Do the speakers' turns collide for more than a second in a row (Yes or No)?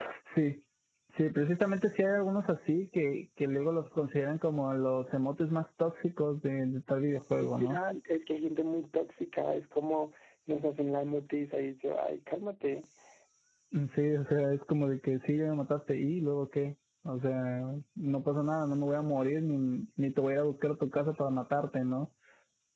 No